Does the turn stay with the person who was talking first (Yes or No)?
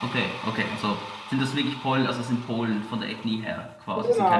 No